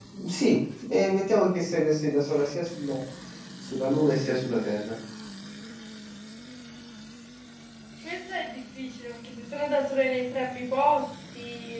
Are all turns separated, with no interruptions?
Yes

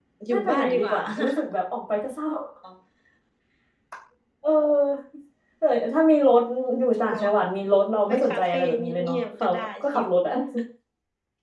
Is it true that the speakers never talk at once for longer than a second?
No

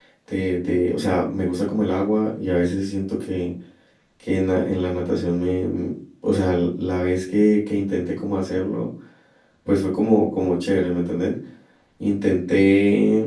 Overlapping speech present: No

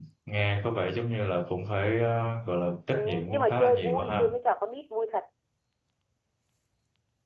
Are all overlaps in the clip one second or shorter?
No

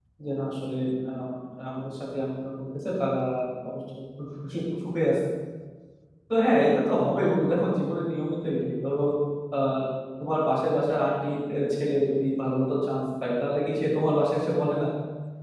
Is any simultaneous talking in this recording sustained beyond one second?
No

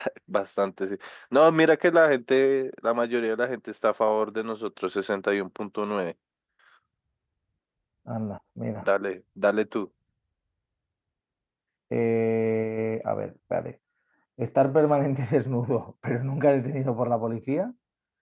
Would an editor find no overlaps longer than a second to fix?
Yes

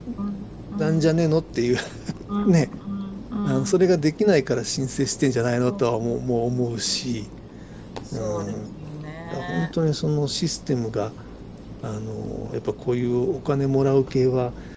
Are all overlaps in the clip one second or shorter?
No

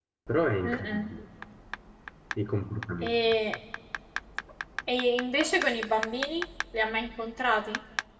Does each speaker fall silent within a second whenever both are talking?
Yes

